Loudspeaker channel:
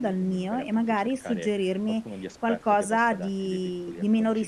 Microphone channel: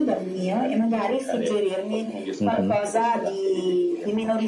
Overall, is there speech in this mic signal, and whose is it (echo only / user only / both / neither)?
both